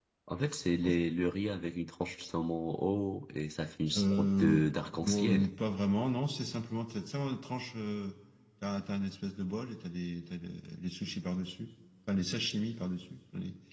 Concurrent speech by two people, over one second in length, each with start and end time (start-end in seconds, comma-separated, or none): 4.0-5.5